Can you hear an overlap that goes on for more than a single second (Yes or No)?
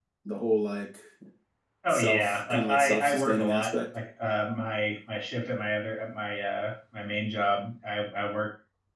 Yes